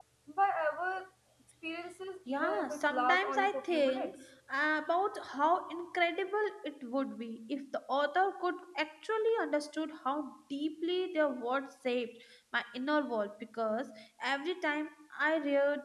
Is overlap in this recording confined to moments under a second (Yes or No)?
No